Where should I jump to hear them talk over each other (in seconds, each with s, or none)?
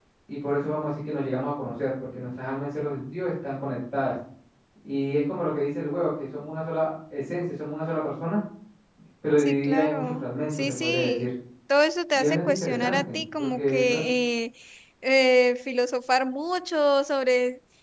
9.4 s